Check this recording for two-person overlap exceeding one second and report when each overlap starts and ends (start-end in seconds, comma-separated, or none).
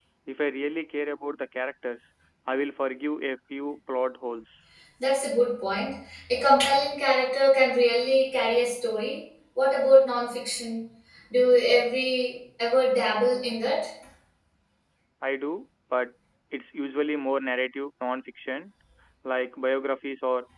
none